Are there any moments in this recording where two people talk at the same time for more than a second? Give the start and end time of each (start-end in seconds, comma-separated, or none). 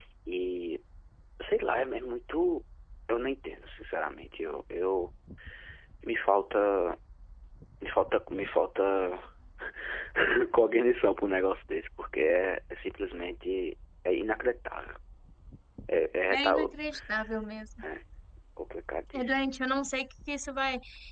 none